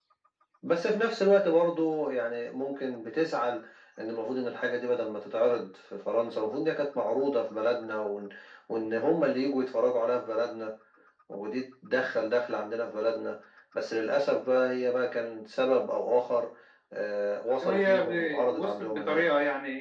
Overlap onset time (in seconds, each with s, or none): 17.6 s